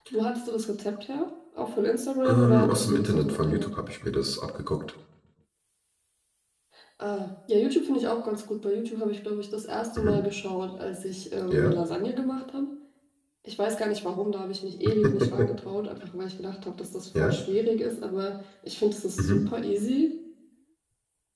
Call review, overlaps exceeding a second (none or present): present